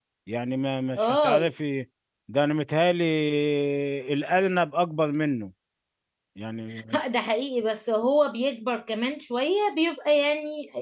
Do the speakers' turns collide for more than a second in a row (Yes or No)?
No